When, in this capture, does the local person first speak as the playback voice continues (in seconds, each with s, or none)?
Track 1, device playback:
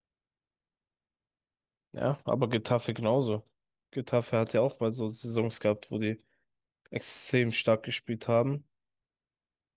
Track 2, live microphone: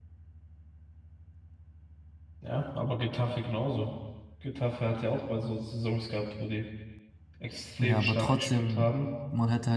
7.8 s